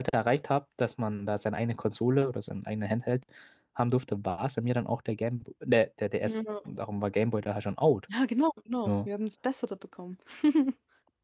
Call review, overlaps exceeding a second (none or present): none